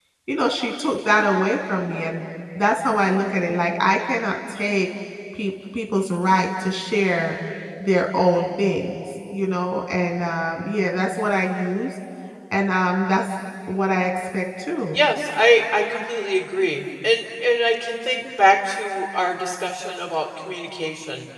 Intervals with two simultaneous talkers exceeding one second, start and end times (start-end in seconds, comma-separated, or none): none